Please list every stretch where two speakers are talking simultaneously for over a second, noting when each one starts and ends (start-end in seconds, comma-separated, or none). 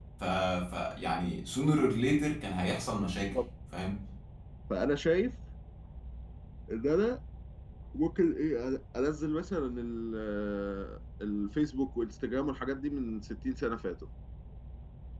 none